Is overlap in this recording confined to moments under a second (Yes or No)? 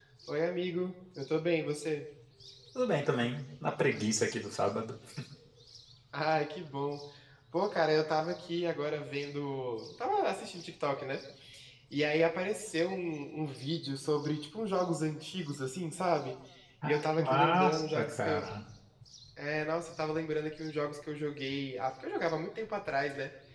No